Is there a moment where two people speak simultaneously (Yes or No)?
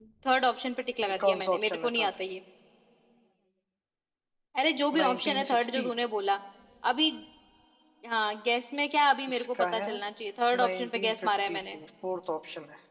Yes